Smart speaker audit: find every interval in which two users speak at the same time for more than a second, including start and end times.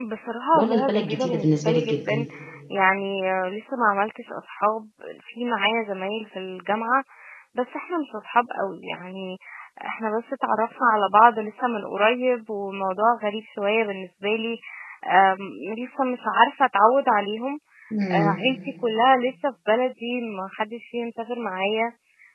0.6-2.2

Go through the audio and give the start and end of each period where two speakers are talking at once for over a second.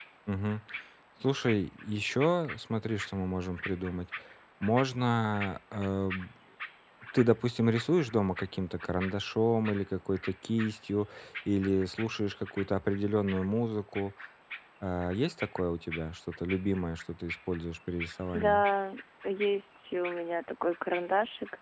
none

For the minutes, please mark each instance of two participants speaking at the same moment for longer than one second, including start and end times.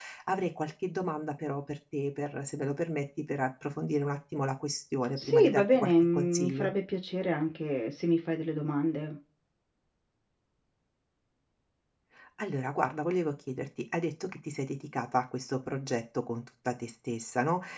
5.2-6.7

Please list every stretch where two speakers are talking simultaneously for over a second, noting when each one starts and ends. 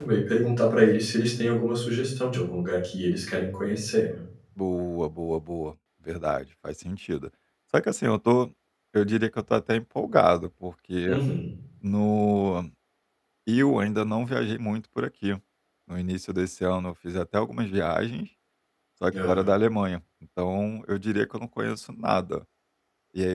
none

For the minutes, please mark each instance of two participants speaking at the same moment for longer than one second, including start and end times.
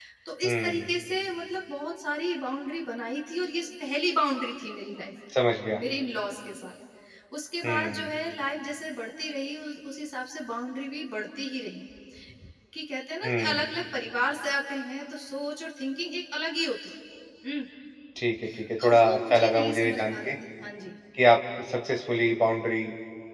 18.8-20.3

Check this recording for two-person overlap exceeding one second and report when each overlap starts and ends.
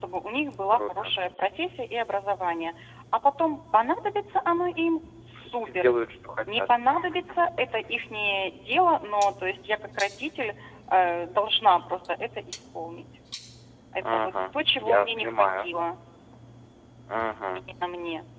14.0-15.7

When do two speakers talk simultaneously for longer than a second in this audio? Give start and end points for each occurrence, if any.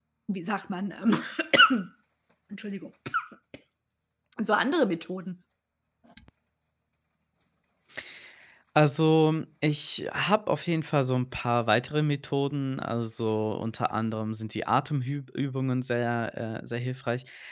none

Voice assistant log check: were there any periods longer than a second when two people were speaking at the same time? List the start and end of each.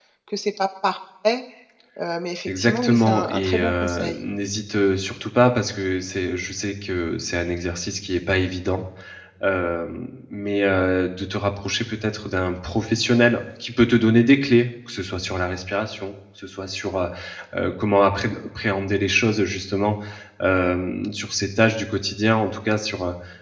2.5-4.2

